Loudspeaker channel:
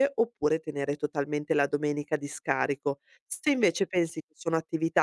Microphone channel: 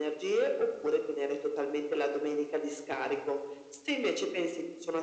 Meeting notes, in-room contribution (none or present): none